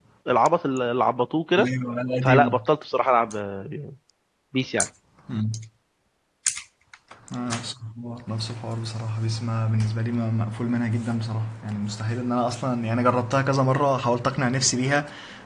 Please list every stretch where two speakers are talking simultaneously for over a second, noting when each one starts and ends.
none

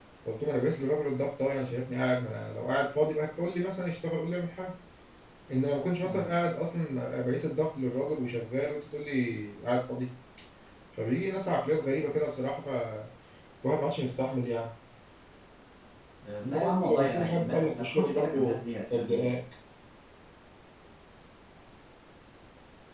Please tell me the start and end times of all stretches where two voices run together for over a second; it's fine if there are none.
16.4-19.4

